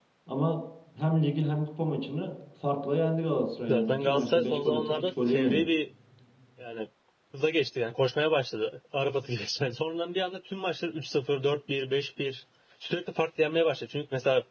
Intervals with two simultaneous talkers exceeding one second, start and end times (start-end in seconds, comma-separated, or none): 3.7-5.6